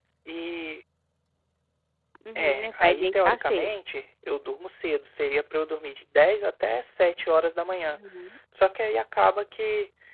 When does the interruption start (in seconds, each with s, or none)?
2.4 s